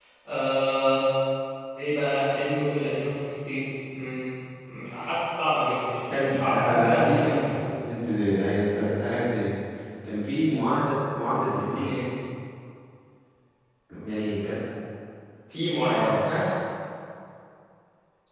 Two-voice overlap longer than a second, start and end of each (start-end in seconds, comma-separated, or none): 6.1-7.4